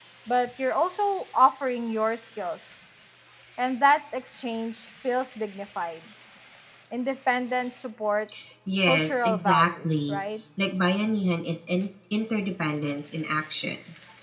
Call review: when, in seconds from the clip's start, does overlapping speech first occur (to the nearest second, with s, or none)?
9 s